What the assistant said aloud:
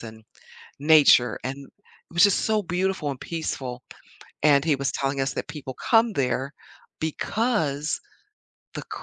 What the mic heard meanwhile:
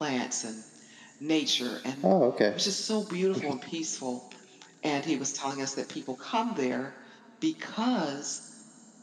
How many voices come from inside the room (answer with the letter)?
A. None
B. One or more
B